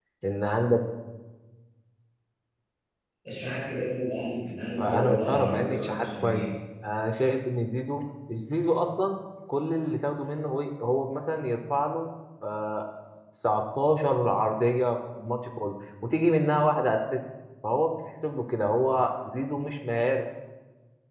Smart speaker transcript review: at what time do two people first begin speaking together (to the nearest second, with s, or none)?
5 s